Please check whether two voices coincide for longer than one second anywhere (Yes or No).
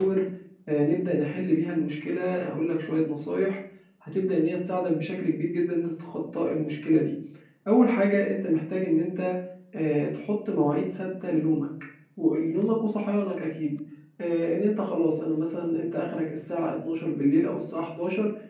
No